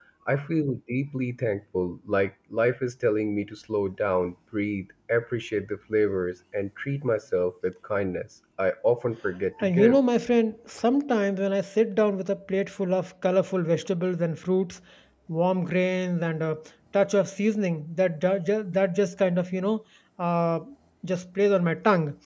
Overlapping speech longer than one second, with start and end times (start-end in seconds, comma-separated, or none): none